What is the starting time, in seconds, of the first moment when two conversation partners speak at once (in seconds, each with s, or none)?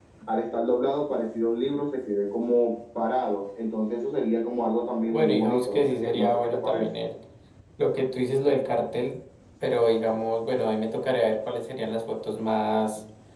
5.1 s